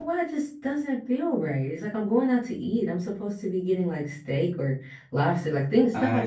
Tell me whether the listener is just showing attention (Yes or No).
No